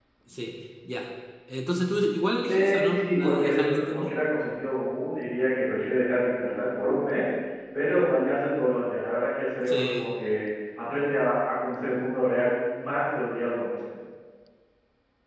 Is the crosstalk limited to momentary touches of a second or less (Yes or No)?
No